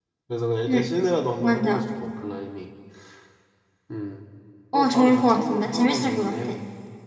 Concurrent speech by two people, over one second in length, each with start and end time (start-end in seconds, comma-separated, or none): 4.7-6.4